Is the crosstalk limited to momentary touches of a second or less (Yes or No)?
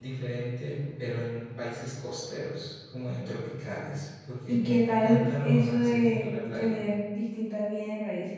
No